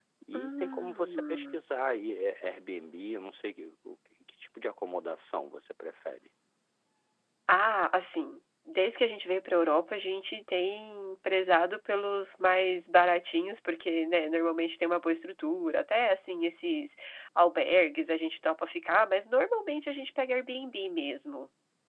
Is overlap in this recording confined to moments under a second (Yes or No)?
No